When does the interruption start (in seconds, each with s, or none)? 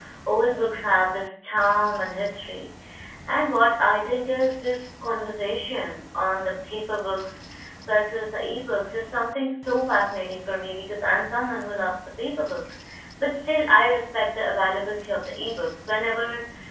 none